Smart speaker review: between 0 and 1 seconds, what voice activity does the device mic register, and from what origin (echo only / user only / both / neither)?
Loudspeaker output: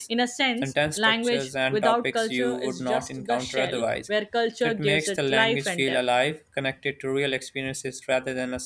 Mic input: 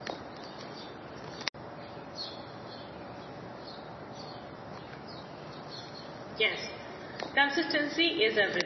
neither